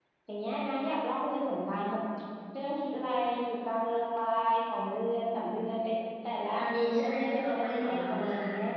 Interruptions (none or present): present